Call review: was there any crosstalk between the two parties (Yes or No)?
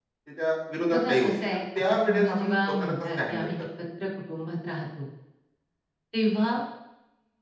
Yes